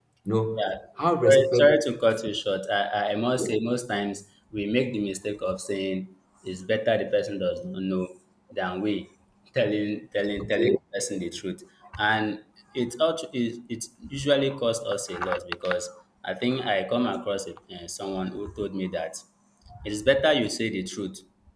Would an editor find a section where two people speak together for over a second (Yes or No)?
No